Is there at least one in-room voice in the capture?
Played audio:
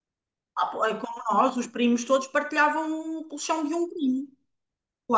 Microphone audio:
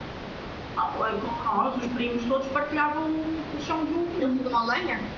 Yes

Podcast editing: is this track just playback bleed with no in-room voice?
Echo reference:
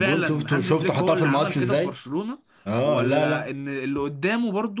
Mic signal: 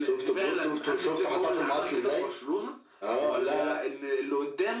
Yes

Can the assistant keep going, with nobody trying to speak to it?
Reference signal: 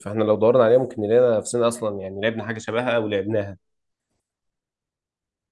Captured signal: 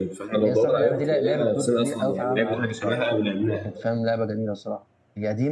No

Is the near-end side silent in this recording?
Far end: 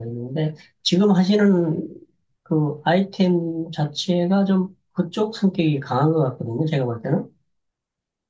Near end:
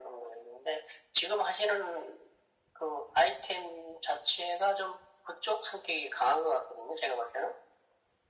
Yes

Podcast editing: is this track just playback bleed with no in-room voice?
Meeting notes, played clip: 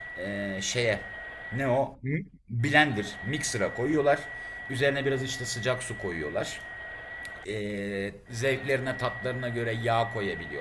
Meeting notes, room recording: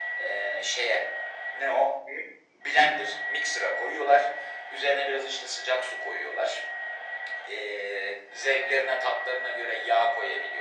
Yes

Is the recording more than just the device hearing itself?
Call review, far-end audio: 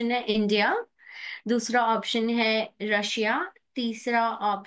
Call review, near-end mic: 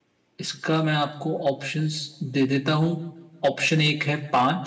Yes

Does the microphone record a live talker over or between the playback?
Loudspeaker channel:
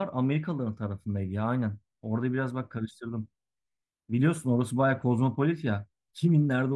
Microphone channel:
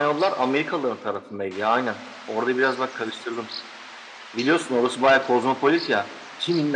No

